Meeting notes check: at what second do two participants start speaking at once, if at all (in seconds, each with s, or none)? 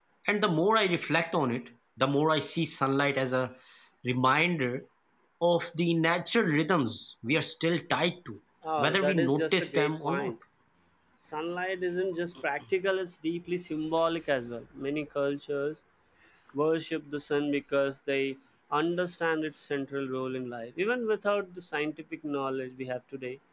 8.8 s